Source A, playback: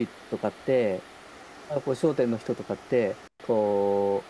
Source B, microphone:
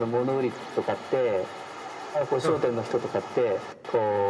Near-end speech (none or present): present